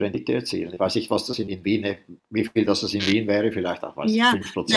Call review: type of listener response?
taking over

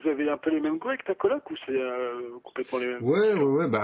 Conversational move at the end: taking over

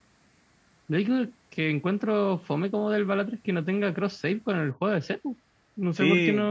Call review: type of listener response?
taking over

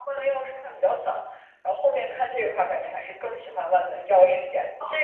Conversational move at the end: listening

